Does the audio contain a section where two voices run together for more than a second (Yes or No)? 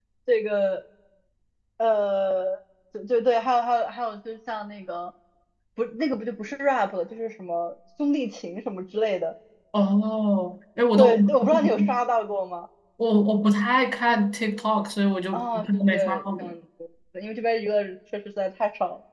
Yes